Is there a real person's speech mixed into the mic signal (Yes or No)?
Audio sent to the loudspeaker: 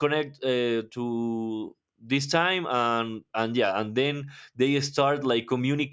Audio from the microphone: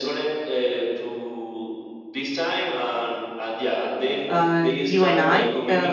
Yes